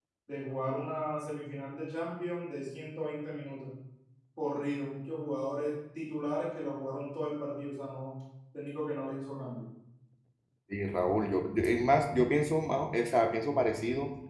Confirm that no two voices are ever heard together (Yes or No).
Yes